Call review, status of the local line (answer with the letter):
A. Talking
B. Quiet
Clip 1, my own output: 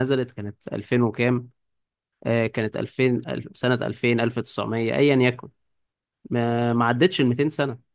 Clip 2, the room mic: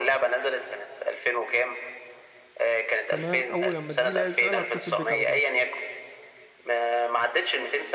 A